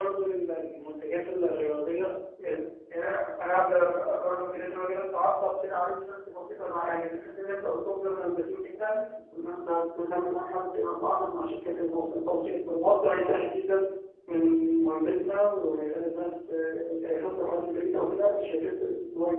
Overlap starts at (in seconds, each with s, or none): none